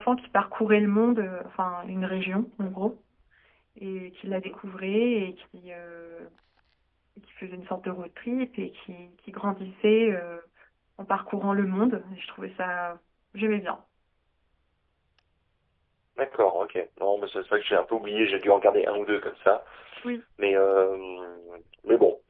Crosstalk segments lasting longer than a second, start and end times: none

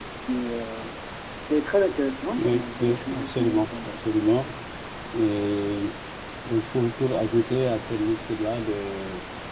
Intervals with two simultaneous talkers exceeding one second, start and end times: 2.4-3.9

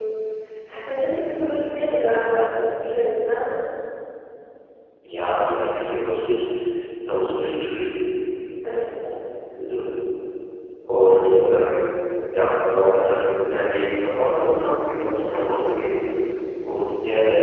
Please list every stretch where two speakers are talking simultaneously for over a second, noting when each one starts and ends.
none

